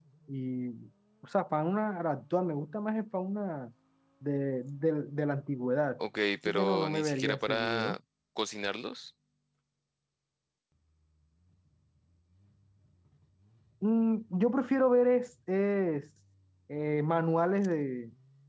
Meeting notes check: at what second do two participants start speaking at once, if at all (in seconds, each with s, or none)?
6.5 s